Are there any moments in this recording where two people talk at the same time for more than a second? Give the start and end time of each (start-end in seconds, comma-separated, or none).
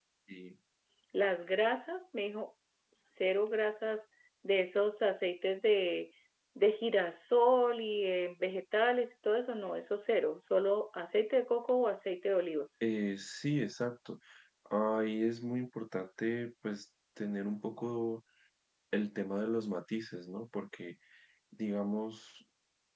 none